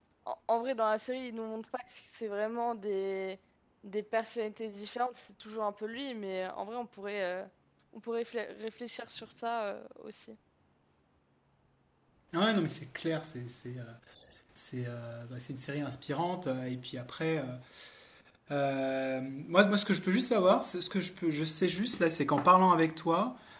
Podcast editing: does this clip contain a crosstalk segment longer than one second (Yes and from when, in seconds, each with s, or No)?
No